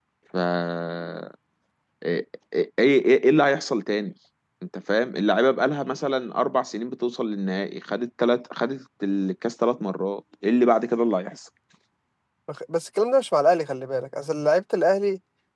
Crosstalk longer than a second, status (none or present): none